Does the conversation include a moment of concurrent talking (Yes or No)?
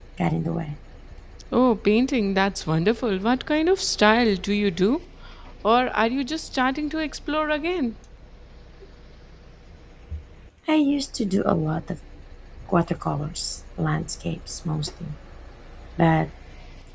No